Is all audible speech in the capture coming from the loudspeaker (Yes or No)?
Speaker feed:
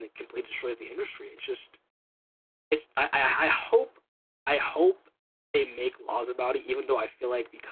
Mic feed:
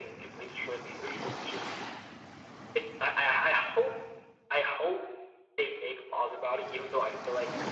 Yes